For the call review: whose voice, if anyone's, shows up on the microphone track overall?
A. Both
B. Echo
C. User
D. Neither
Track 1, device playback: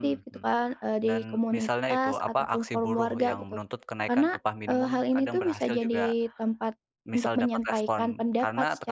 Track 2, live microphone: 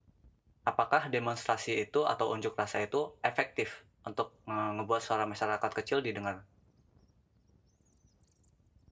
C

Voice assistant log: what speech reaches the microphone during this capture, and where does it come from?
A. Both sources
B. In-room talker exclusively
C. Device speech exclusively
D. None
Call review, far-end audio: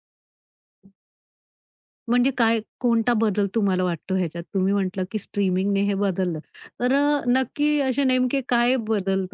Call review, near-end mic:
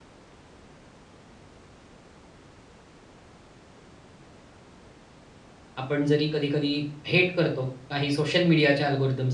B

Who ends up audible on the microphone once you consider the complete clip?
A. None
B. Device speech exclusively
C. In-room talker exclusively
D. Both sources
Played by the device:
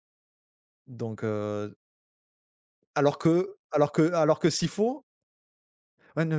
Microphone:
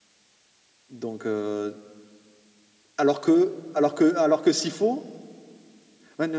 B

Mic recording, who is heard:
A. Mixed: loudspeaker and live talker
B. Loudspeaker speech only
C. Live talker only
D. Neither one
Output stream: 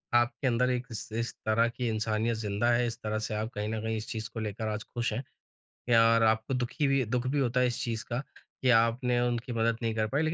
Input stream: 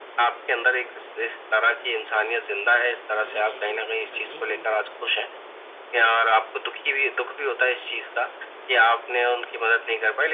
A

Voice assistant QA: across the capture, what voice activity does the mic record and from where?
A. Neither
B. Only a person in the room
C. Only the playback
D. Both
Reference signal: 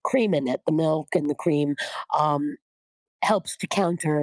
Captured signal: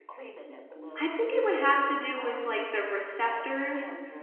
D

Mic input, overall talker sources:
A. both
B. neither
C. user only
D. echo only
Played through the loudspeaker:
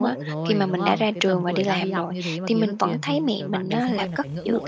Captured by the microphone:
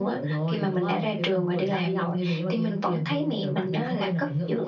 D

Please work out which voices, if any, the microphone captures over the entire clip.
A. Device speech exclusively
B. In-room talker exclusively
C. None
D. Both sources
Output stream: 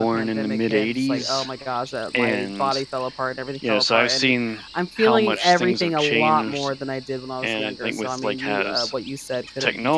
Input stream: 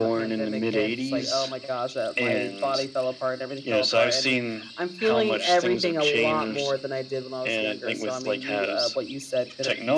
A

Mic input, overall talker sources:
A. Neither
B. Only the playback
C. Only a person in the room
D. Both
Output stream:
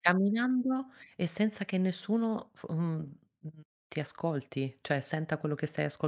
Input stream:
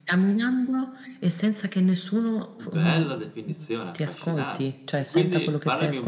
D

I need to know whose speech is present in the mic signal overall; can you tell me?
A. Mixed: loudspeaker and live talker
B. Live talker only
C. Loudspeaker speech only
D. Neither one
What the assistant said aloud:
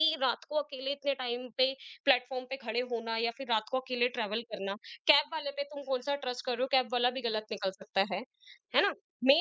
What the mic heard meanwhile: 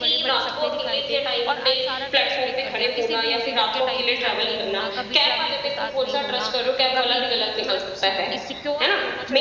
A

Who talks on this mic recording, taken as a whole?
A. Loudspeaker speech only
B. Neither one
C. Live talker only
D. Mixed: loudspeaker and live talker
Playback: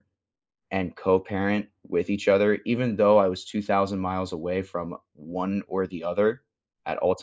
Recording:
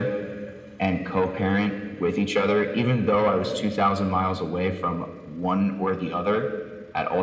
A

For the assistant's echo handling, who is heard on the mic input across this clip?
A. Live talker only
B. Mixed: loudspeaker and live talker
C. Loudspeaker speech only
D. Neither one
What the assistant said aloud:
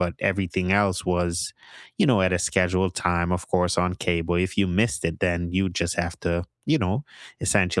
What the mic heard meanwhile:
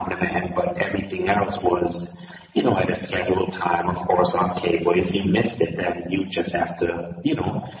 C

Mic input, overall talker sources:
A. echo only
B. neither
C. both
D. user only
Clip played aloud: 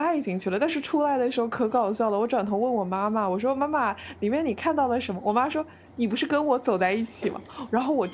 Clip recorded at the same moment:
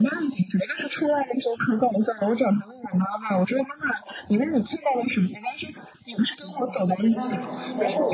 C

